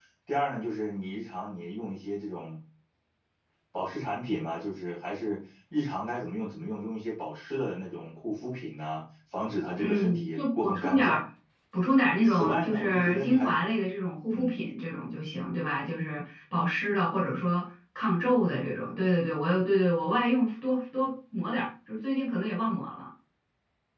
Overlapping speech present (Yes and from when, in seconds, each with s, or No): Yes, from 9.8 s